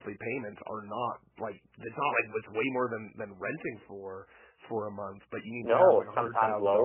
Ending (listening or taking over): taking over